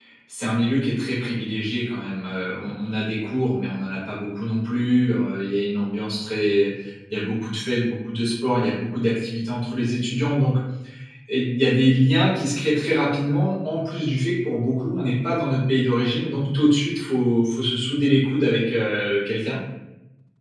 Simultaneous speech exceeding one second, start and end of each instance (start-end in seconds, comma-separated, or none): none